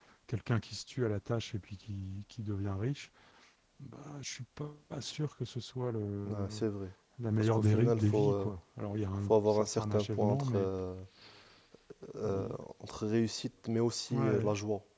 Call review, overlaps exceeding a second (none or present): present